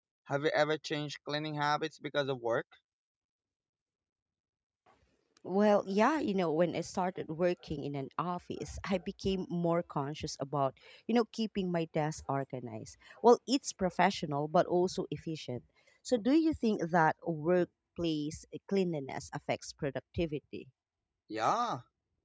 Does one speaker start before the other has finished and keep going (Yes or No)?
No